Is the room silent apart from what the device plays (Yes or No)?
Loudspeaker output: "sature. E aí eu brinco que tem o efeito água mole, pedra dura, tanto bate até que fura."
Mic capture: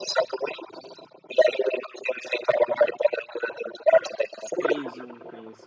No